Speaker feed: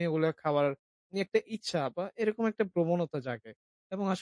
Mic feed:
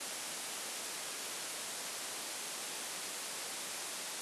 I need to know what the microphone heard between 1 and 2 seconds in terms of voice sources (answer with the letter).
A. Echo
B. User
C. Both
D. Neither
D